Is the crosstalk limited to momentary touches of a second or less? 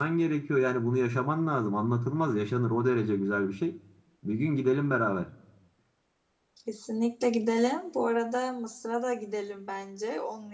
Yes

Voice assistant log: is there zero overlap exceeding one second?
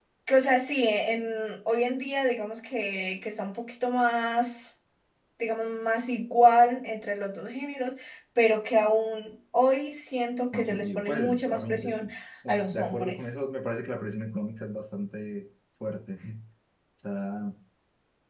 No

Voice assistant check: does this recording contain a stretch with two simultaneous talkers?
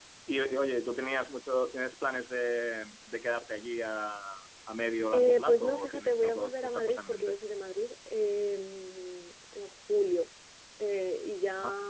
Yes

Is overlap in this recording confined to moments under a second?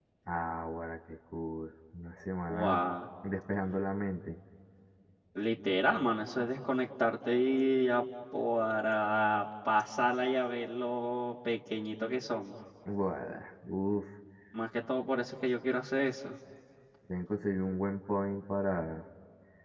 Yes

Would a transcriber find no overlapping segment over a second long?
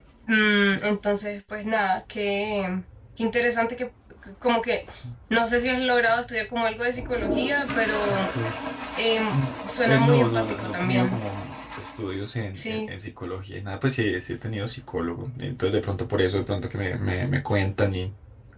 No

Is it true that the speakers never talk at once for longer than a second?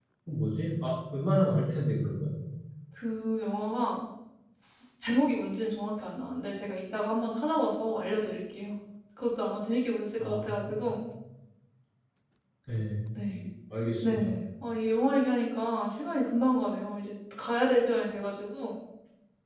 Yes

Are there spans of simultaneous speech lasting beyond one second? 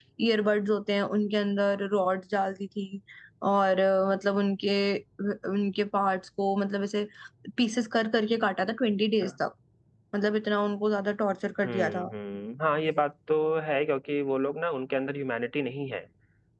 No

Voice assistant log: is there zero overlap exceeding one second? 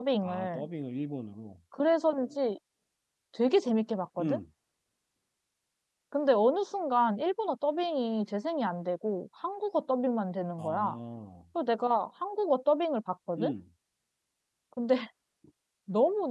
Yes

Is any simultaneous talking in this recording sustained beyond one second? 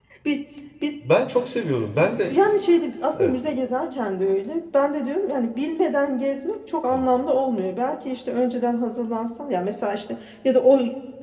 No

